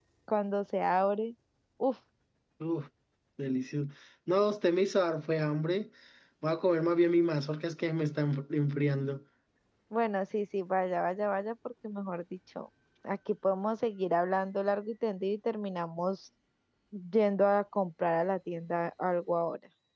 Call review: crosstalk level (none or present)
none